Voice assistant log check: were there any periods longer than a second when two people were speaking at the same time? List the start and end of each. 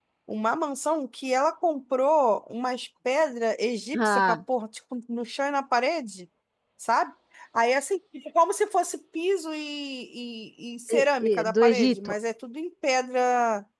10.9-12.1

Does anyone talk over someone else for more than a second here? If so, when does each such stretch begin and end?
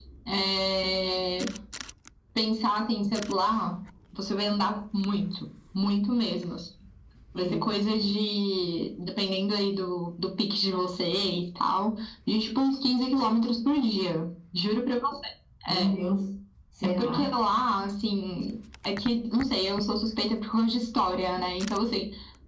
none

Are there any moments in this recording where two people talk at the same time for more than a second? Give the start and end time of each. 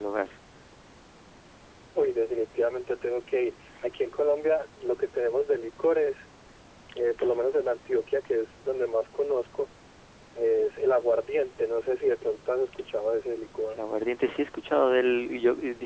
none

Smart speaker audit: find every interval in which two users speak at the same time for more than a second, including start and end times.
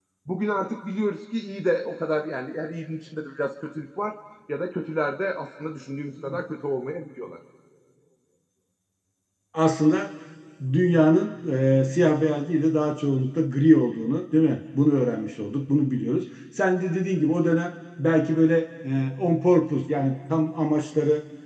none

